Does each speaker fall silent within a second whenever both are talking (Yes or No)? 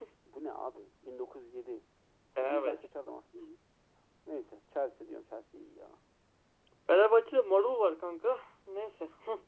Yes